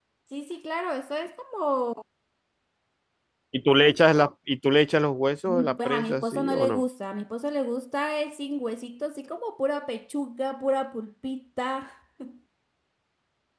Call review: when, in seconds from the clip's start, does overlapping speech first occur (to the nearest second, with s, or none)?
5 s